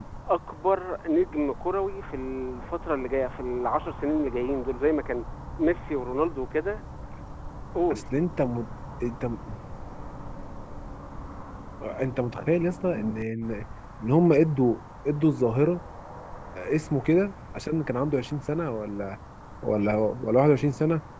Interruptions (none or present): none